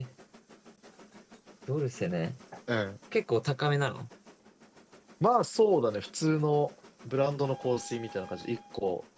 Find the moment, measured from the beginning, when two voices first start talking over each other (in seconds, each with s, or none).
none